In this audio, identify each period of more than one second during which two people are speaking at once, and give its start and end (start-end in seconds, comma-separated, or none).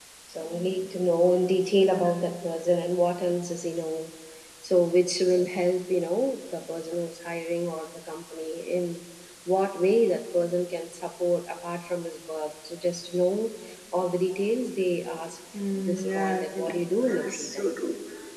15.8-17.8